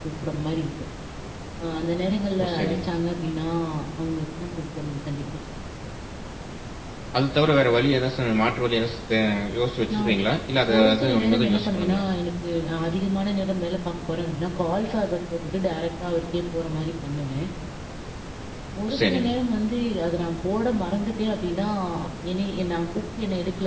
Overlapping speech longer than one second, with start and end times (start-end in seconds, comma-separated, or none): 10.8-12.0